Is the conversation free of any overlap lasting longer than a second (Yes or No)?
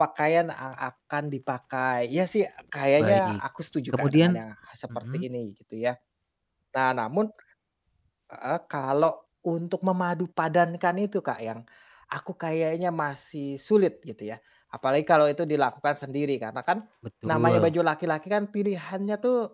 Yes